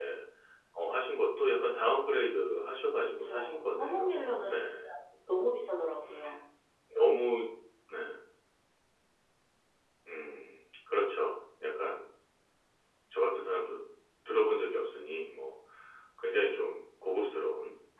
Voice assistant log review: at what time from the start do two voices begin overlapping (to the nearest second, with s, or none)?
3 s